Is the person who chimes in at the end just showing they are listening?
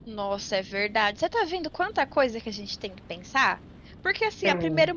Yes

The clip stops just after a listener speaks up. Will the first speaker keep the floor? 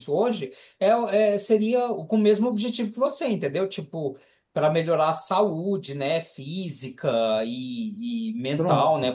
Yes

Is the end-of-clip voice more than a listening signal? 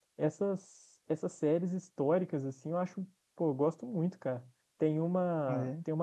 No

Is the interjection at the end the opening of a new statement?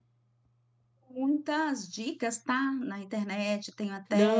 Yes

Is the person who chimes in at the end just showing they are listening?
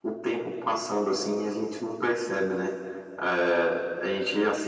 Yes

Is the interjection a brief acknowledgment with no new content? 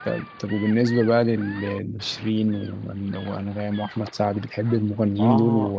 No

